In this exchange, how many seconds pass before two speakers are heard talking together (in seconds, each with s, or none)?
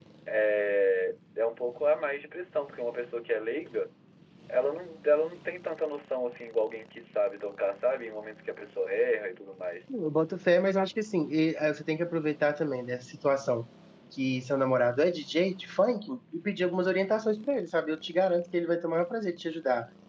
none